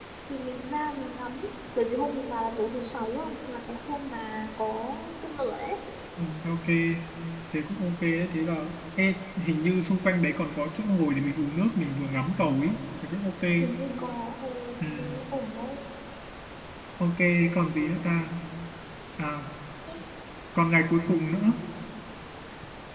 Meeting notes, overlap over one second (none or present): none